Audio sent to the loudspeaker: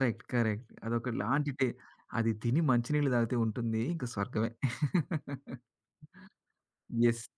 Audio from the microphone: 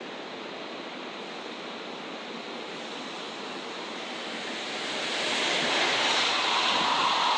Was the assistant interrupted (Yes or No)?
No